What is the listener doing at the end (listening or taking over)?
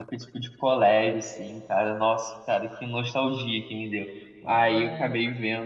listening